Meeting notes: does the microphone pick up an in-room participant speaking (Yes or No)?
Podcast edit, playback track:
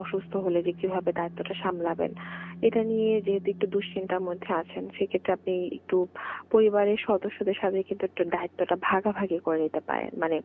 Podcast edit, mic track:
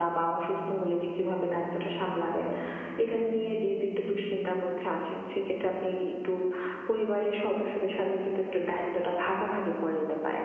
No